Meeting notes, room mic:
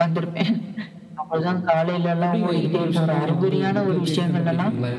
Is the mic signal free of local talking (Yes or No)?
No